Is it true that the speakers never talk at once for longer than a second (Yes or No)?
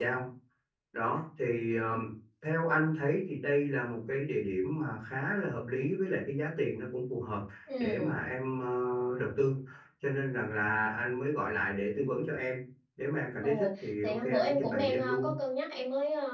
No